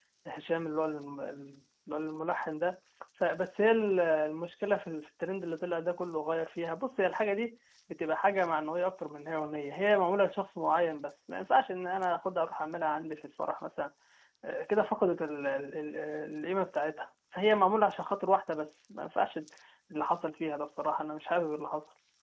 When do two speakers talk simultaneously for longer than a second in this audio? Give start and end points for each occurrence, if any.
none

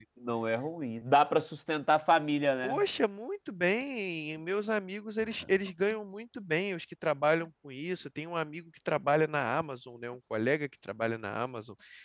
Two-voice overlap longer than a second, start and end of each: none

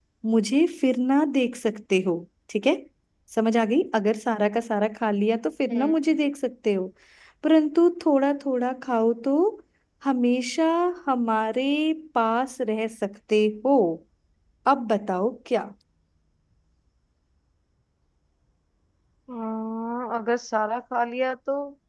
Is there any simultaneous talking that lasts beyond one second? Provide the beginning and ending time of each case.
none

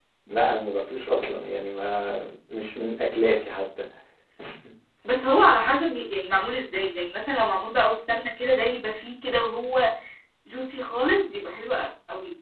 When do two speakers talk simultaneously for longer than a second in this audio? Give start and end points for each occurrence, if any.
none

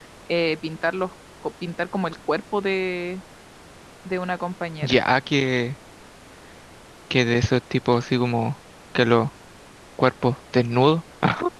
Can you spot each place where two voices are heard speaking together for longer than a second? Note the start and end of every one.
none

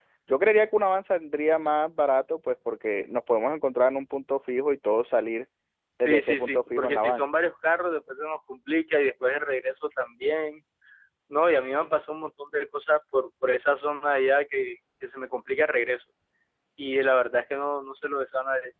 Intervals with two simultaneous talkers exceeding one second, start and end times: 6.0-7.2

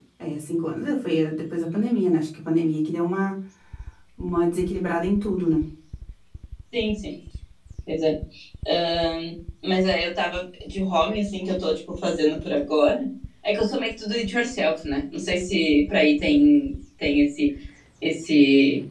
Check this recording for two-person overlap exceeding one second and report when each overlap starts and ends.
none

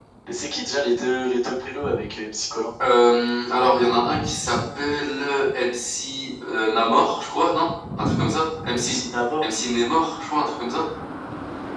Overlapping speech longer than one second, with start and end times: none

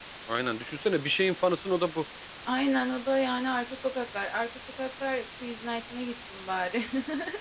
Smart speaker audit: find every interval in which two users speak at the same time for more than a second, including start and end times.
none

